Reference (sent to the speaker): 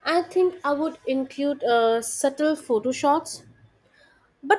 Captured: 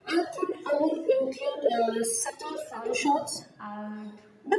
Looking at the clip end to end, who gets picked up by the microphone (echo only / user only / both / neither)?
both